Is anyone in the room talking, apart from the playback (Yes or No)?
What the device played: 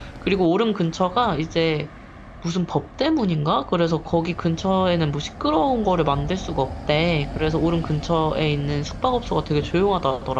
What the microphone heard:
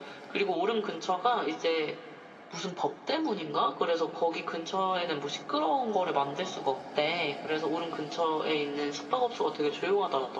No